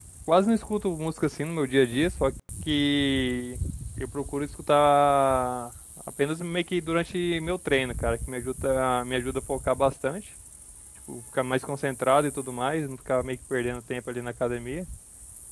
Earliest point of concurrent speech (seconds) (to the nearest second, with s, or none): none